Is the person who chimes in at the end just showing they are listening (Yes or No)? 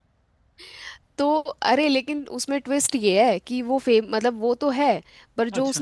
Yes